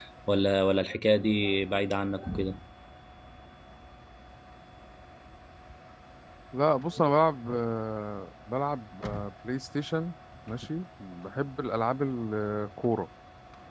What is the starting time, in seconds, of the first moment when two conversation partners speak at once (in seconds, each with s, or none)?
none